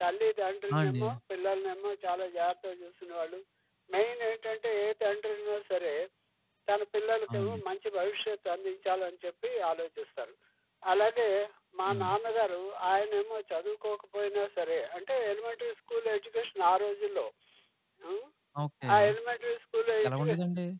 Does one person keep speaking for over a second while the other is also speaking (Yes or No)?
No